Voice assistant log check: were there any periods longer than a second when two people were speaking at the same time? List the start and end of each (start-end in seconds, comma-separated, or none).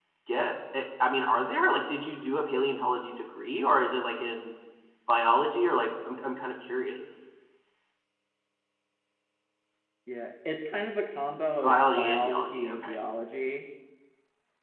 11.6-13.0